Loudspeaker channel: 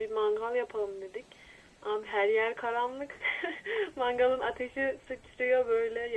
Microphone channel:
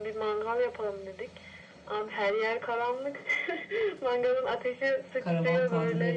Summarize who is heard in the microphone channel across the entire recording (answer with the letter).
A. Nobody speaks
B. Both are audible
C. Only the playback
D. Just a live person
B